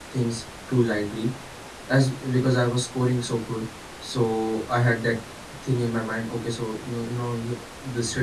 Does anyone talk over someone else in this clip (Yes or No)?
No